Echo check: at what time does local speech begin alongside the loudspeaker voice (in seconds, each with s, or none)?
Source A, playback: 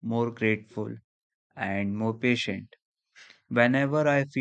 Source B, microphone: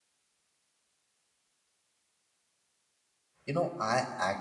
3.5 s